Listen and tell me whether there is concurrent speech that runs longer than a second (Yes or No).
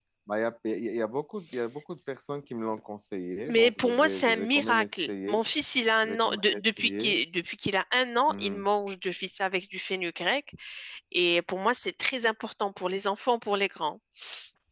Yes